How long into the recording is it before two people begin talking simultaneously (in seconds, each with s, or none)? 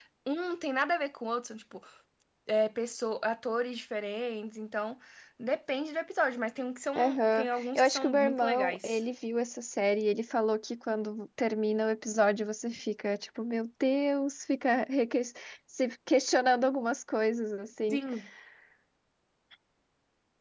7.0 s